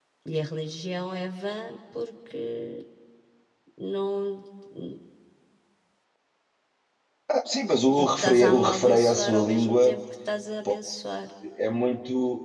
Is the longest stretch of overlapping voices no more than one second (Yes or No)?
No